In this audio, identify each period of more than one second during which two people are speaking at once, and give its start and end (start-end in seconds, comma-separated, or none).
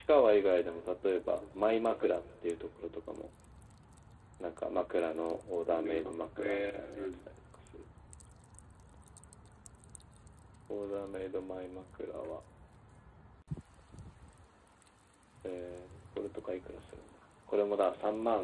5.8-7.1